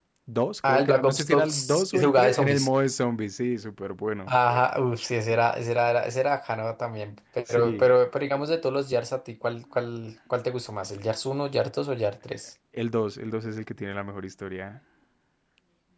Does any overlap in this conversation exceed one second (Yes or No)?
Yes